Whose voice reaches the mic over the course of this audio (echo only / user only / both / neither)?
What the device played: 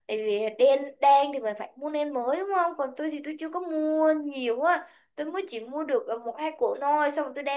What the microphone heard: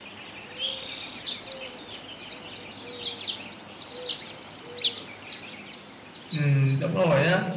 user only